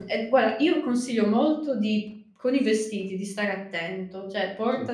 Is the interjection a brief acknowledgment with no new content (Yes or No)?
Yes